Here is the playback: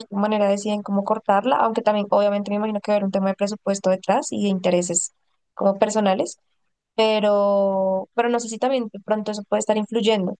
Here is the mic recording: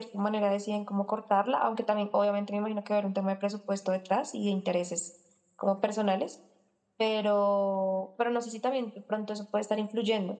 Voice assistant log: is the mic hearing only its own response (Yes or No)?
Yes